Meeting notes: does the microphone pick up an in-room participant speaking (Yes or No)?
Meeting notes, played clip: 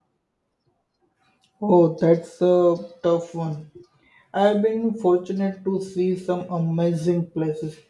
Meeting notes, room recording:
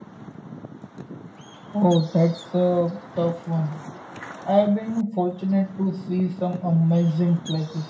No